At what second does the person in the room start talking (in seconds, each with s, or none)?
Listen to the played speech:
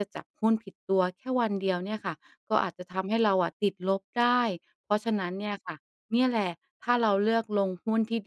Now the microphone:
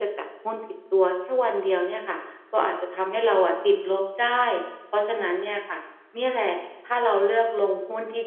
none